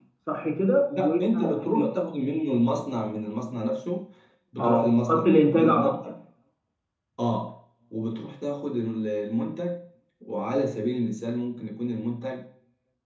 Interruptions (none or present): present